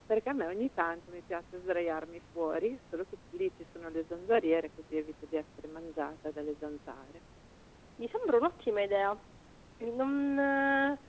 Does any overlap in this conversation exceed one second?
No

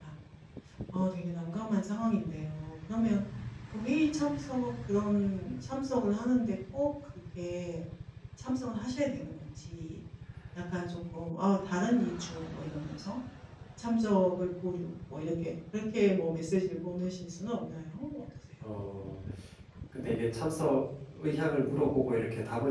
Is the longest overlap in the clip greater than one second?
No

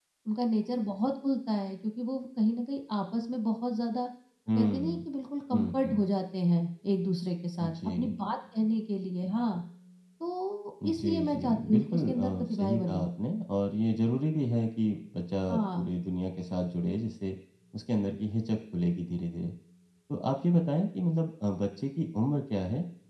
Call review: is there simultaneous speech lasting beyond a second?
Yes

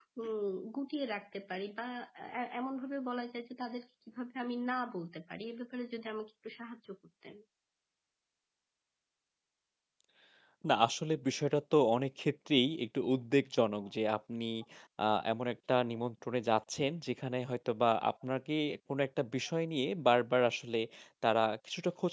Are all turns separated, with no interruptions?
Yes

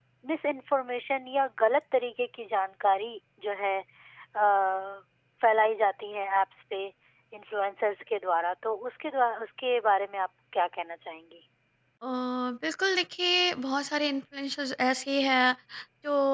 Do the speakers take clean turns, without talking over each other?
Yes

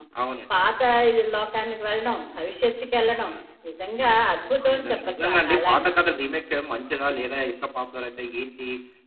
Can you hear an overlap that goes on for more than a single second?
Yes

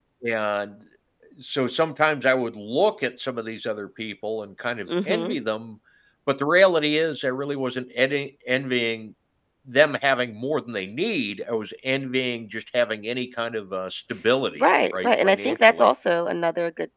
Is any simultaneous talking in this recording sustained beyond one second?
Yes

